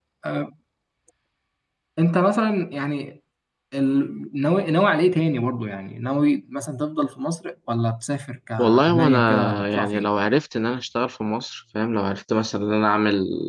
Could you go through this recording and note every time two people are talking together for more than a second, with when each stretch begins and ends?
8.6-10.1

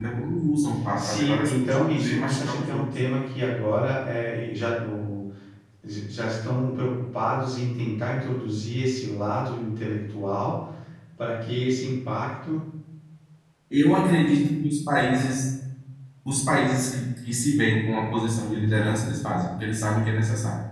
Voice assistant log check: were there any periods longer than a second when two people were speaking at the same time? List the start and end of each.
1.0-2.9

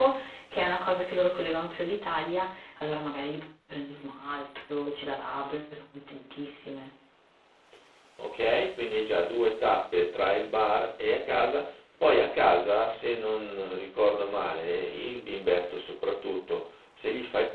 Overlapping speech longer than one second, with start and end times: none

